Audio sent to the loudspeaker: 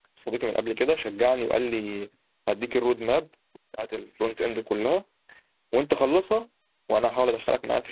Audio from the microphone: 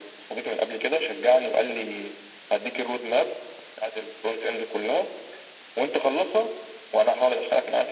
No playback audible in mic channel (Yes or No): No